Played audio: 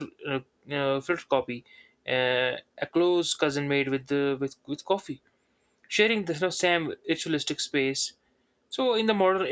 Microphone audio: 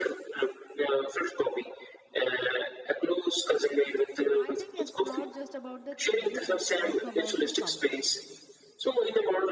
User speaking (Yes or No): Yes